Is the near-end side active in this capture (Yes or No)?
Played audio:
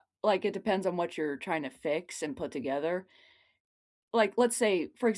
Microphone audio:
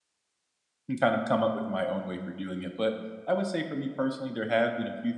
Yes